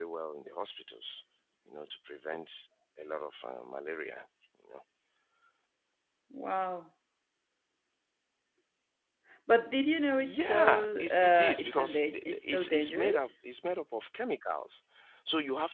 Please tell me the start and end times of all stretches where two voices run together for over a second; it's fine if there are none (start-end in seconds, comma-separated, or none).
10.2-13.3